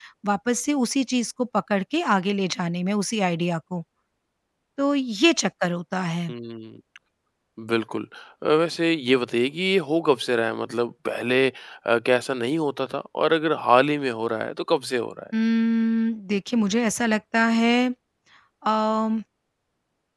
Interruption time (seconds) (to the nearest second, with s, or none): none